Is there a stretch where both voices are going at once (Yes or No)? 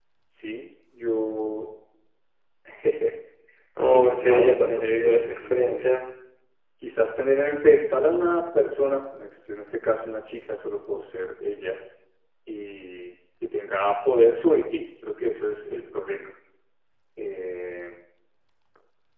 Yes